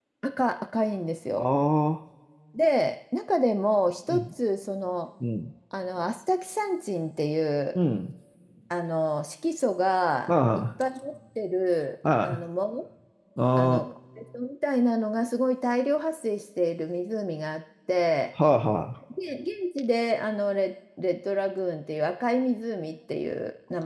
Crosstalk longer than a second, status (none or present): none